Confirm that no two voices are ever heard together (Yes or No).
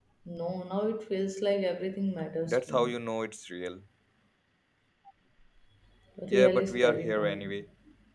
No